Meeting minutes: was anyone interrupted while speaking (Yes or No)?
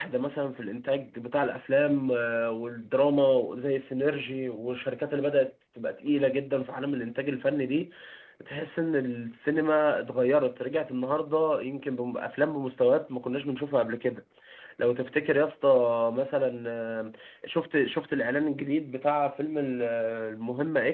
No